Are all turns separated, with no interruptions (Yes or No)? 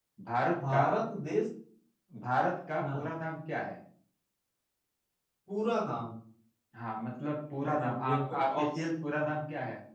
No